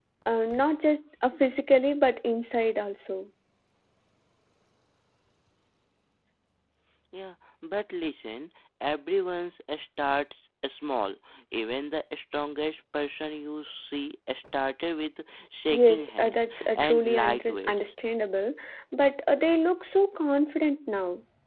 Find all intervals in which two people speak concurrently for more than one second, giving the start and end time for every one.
15.7-17.8

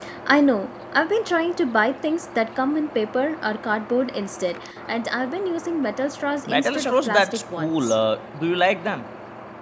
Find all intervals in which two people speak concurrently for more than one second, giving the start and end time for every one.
6.5-8.0

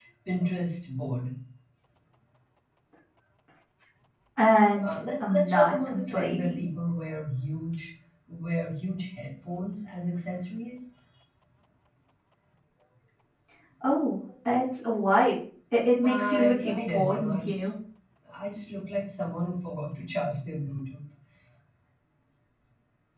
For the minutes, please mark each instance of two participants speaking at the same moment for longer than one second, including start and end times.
4.8-6.7, 16.0-17.7

